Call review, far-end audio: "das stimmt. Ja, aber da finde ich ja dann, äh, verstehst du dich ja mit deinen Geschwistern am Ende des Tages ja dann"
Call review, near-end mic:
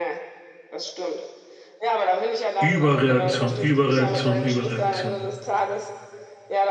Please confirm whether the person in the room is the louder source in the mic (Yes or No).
Yes